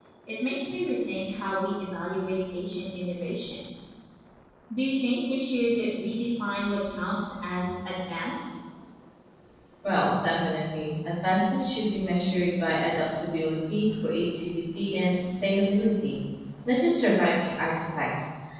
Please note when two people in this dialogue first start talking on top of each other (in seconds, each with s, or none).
none